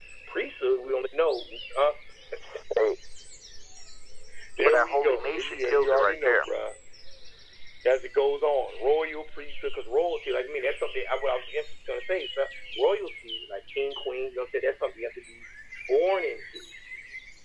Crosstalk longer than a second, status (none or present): present